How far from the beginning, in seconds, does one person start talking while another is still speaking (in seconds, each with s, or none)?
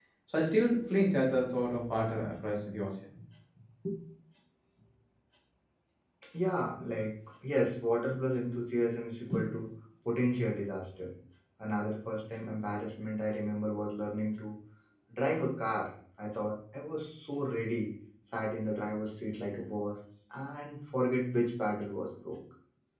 none